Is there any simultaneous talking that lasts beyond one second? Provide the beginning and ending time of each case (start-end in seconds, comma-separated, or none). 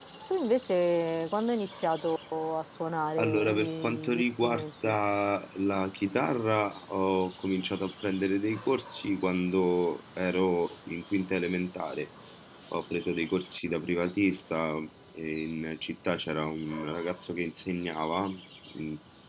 3.2-4.9